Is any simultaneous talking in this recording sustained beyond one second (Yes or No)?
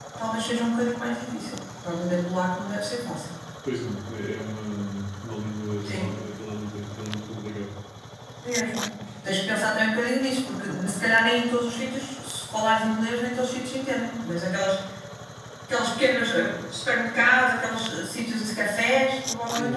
No